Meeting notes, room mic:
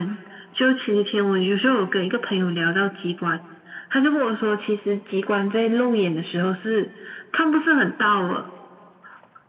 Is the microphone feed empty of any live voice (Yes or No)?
Yes